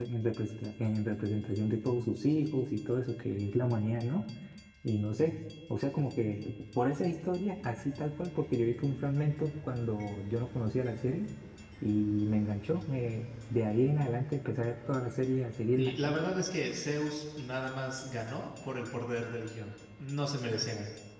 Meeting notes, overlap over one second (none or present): none